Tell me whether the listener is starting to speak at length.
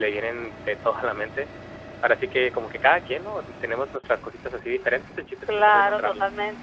Yes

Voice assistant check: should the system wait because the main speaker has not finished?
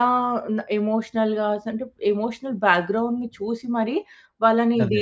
Yes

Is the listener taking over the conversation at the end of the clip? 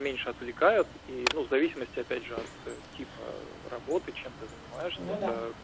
No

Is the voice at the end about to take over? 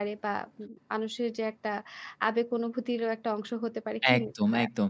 Yes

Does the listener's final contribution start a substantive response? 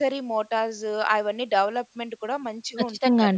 Yes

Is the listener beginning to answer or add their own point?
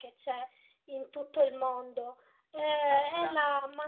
No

